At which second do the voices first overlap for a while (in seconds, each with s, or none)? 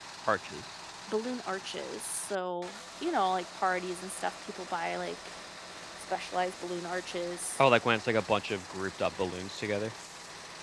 none